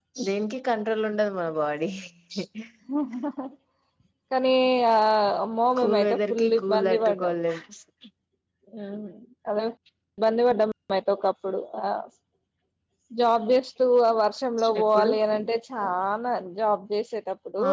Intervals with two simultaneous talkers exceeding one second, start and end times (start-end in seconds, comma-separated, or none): 5.8-7.3